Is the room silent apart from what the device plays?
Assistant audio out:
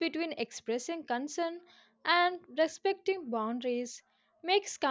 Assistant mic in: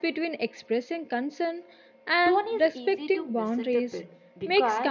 No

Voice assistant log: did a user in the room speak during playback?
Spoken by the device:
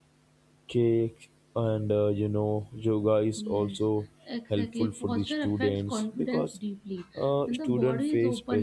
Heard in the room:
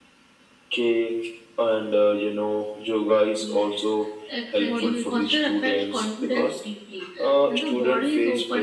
Yes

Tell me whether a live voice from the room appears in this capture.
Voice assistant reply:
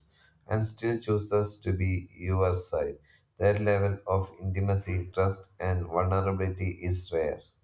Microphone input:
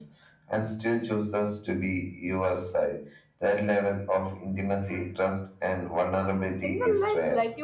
Yes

